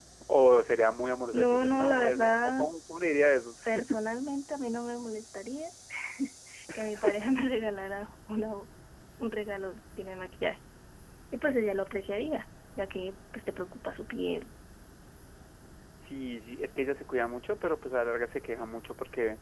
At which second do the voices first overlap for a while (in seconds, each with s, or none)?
1.3 s